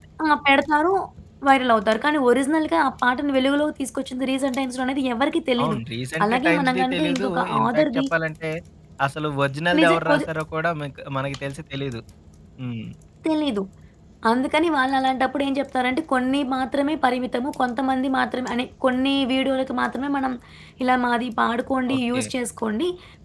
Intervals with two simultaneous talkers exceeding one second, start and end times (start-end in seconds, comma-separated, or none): 6.2-8.0